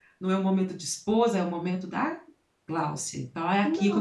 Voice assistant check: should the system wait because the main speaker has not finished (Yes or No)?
No